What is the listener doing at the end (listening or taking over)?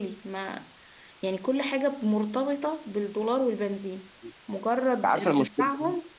listening